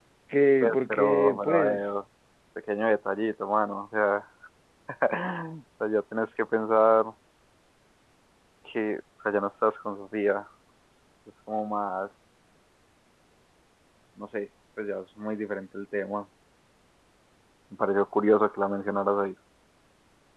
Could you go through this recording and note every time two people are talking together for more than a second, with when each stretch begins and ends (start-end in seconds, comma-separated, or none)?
0.6-2.0